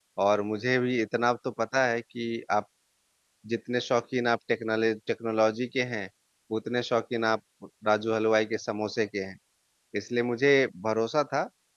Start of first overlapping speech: none

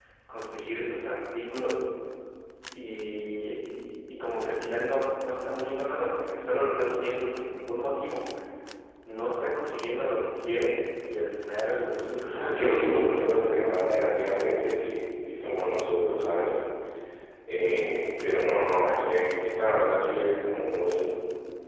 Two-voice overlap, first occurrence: 12.5 s

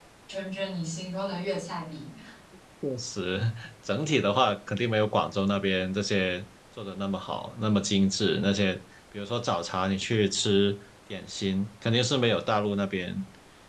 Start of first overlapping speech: none

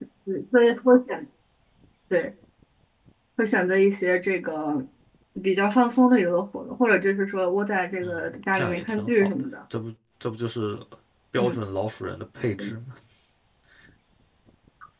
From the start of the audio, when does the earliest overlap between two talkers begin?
8.0 s

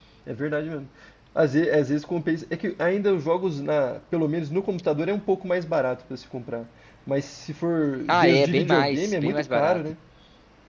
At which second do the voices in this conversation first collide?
8.1 s

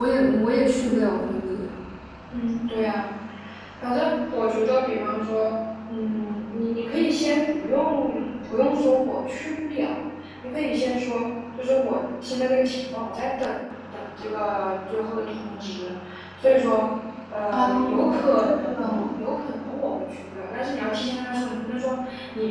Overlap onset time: 17.5 s

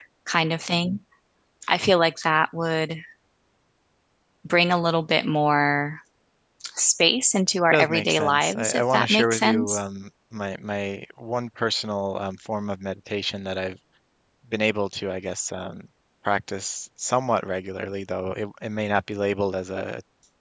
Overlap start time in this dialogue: 7.7 s

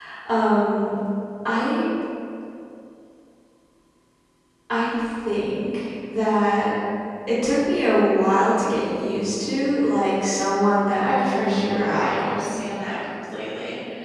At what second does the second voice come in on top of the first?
11.0 s

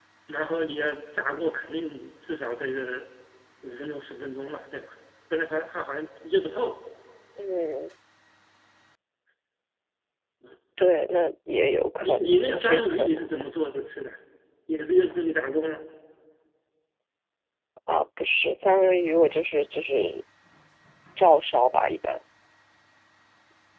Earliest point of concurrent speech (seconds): 12.0 s

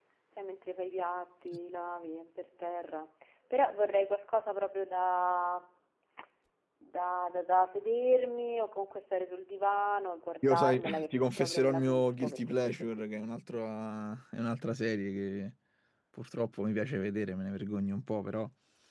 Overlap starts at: 10.4 s

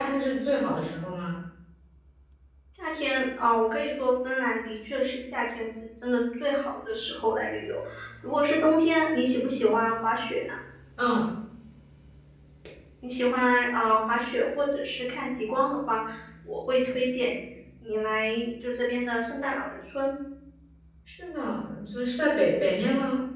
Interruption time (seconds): none

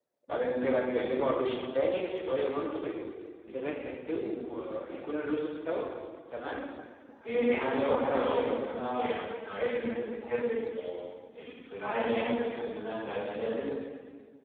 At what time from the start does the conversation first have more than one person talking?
7.3 s

